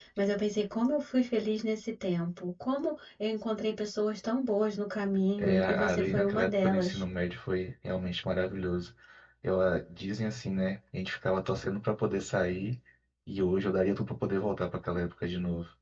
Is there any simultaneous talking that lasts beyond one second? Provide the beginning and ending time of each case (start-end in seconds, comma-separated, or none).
5.4-7.0